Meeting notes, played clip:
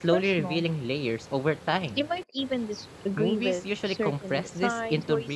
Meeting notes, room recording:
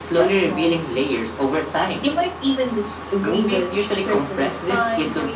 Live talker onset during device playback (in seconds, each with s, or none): none